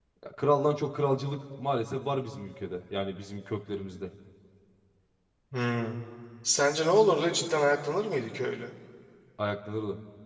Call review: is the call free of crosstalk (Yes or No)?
Yes